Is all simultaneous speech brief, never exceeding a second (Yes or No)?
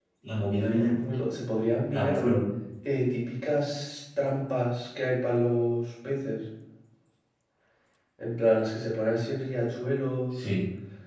Yes